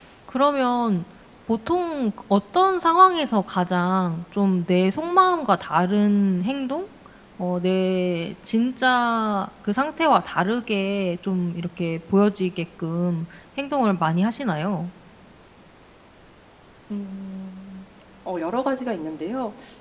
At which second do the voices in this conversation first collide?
none

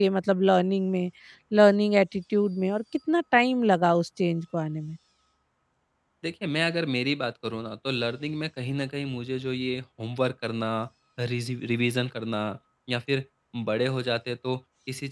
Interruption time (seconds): none

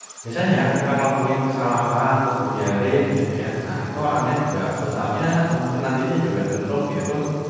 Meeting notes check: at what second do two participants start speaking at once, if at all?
none

